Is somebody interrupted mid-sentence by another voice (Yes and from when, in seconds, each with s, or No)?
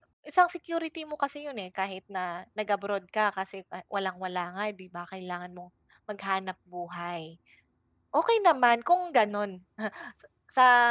No